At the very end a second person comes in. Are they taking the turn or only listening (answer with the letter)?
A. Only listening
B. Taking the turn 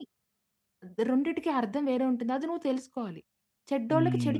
B